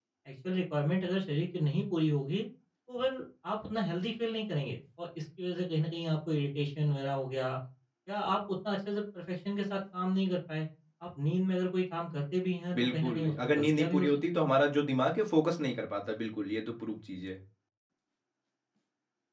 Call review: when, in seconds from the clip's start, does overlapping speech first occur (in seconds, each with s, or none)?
12.7 s